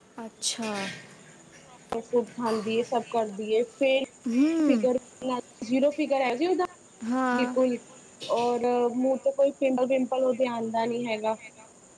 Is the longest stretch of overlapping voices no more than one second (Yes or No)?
Yes